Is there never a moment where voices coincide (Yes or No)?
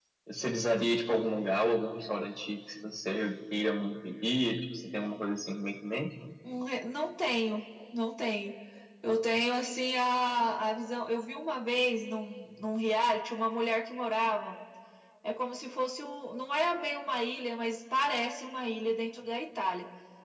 Yes